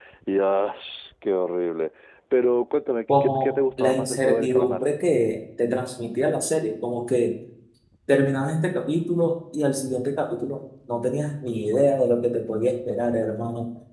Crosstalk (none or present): present